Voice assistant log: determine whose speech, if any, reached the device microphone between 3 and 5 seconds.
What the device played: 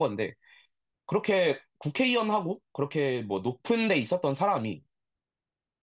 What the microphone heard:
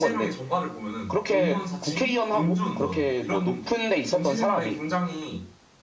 both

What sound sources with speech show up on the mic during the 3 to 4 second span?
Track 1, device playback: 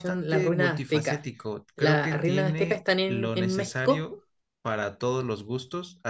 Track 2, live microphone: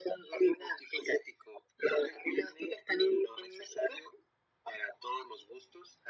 echo only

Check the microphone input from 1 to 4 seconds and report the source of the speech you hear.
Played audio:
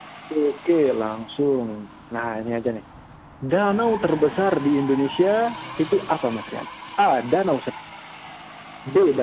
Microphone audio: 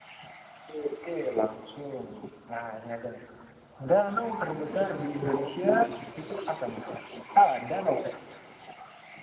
echo only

